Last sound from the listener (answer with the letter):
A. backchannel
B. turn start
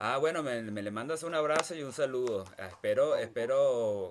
A